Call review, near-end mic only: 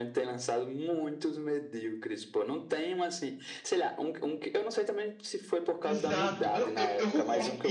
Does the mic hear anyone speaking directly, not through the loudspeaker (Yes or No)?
Yes